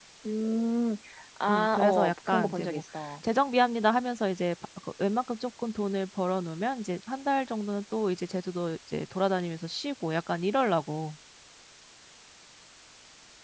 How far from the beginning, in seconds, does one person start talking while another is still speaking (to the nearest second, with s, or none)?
1 s